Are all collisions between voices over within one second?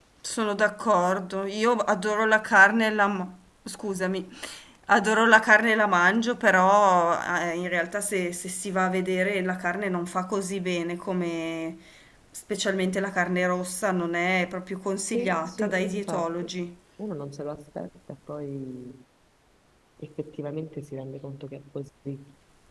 No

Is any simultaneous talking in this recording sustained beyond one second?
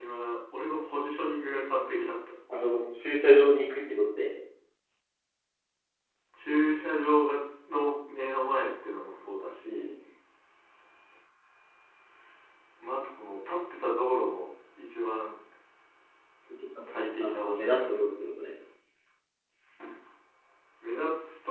Yes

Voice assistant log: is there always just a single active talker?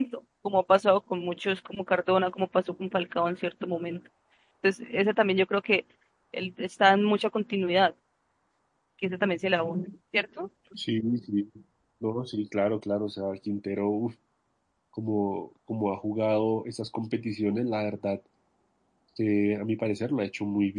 Yes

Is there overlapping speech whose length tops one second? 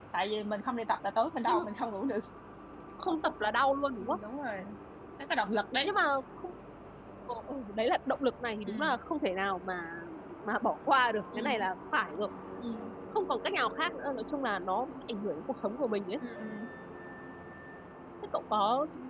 No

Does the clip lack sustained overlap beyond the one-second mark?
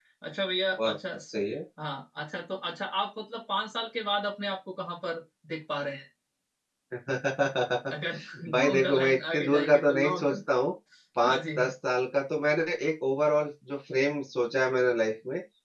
No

